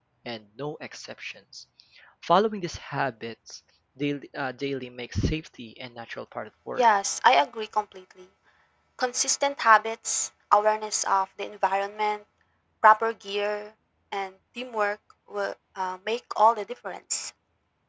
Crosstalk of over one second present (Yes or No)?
No